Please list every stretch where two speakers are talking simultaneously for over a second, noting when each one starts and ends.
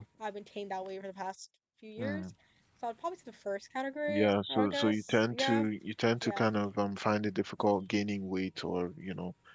4.1-5.7

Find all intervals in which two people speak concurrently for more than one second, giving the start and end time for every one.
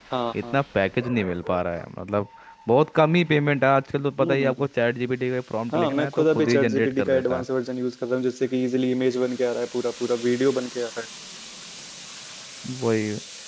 5.7-7.4

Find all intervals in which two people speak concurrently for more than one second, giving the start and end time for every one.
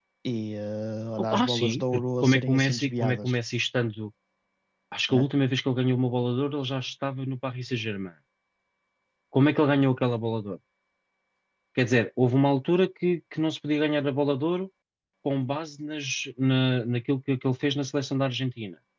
1.2-3.4

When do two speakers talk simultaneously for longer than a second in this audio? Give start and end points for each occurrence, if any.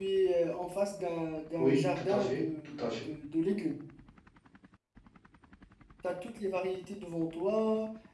1.6-3.1

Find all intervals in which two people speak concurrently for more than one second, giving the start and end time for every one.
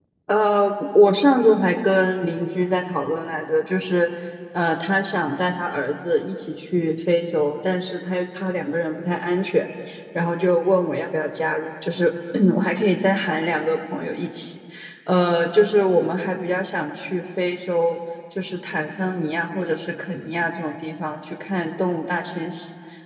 none

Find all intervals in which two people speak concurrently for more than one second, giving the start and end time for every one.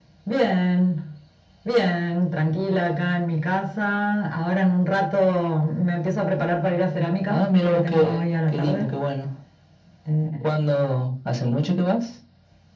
7.3-8.9

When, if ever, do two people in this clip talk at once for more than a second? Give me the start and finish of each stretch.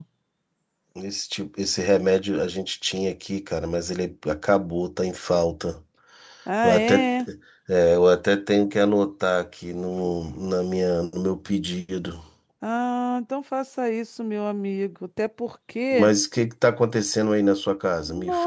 none

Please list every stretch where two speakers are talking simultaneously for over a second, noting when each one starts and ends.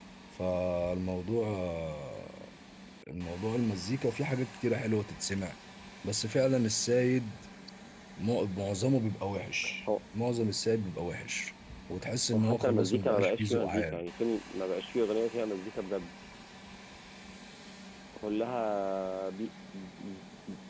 12.3-14.1

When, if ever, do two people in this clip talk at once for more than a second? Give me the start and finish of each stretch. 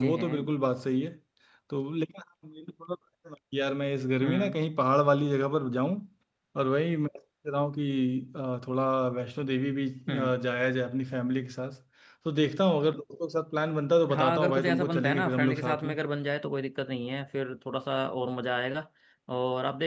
14.1-15.9

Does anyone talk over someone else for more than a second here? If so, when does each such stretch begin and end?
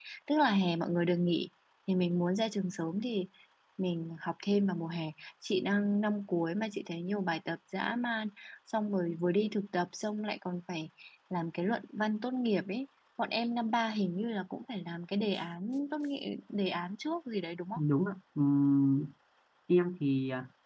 none

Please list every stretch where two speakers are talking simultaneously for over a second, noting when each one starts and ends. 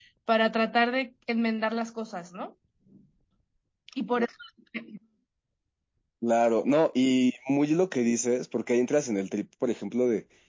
none

